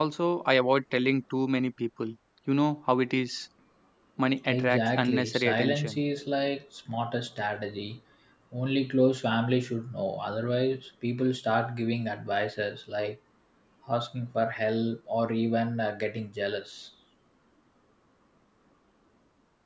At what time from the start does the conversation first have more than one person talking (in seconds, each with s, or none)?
4.5 s